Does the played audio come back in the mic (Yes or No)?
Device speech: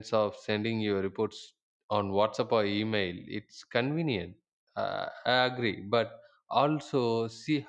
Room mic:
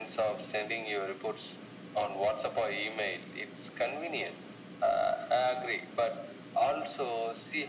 Yes